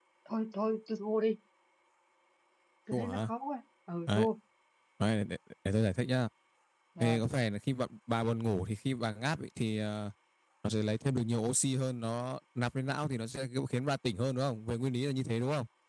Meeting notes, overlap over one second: none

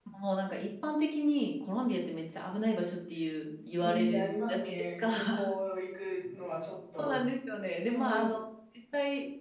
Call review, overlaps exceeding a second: present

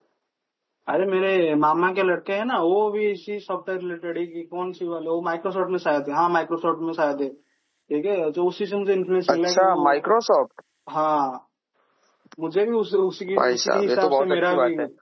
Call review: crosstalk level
present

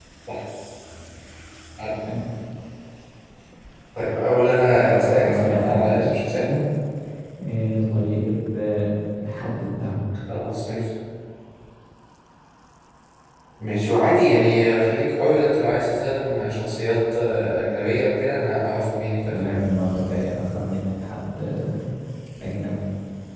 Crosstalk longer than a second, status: present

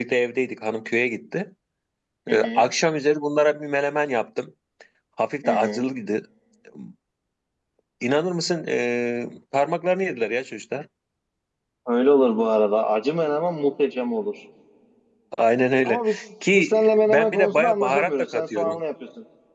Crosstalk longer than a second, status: present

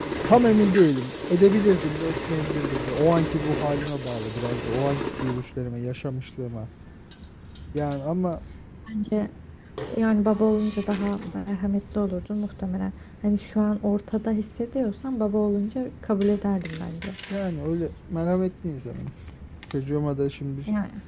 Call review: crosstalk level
none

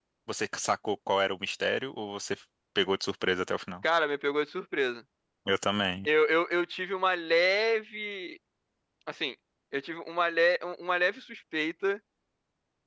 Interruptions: none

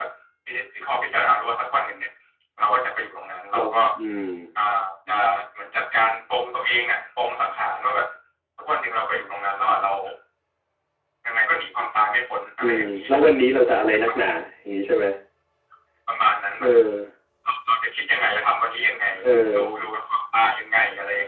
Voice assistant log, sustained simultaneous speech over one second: none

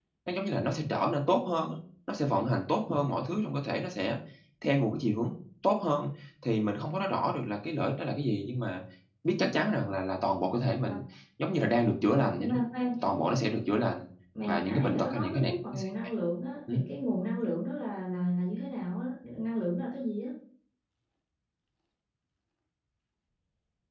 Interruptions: present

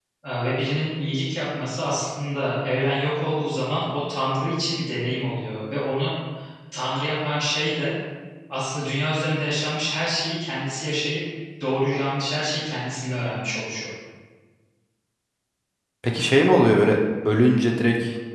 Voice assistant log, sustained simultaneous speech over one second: none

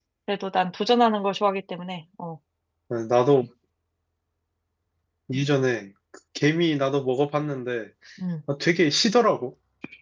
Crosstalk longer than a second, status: none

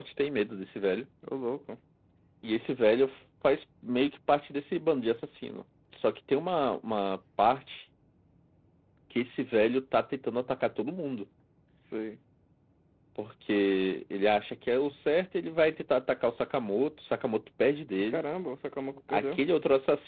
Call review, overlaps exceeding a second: none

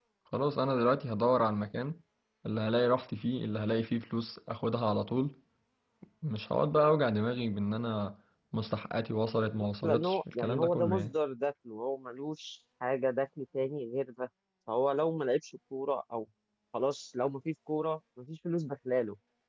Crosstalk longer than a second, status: present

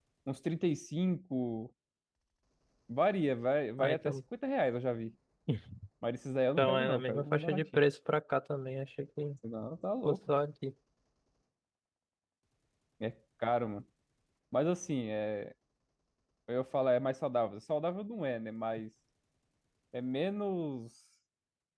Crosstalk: present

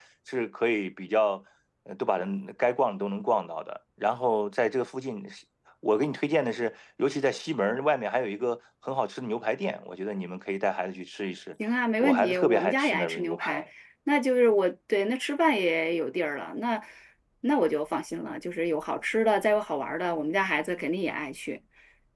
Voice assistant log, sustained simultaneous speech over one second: present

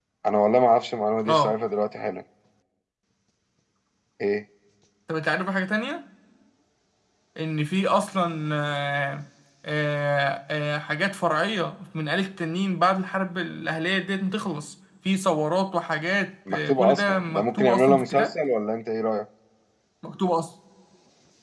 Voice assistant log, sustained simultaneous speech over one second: present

